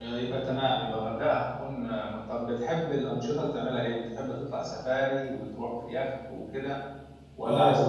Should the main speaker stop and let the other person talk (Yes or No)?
Yes